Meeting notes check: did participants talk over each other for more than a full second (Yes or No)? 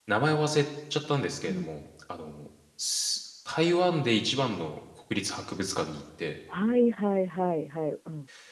No